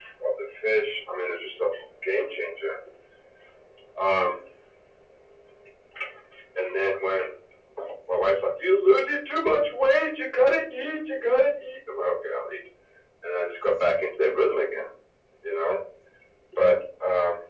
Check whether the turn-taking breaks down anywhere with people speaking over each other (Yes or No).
No